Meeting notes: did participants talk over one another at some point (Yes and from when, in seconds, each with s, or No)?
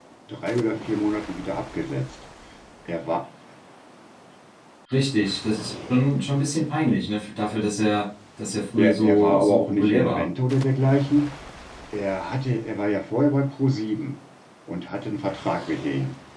Yes, from 8.8 s